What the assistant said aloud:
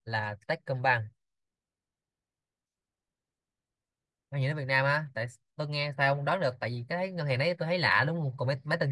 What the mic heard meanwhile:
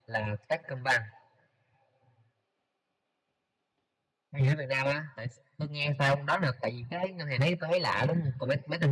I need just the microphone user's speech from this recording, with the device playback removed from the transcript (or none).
none